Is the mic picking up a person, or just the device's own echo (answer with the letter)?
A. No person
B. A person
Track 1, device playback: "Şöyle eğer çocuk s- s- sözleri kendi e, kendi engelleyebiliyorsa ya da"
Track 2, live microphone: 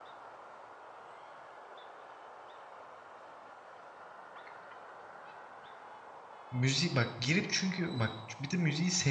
B